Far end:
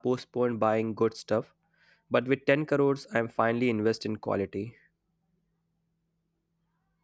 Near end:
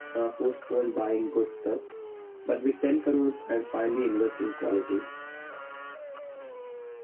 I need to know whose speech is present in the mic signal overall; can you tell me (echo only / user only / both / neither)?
echo only